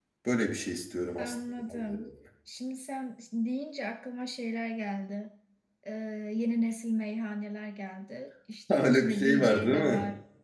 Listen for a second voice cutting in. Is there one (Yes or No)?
Yes